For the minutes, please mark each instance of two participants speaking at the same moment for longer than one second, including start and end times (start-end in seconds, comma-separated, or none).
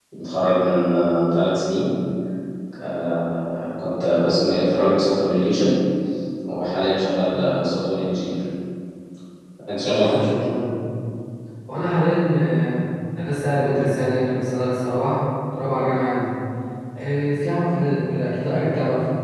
none